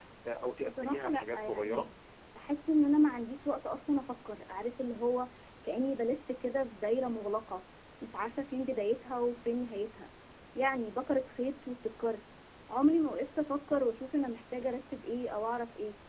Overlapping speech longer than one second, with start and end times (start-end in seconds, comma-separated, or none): 0.6-1.8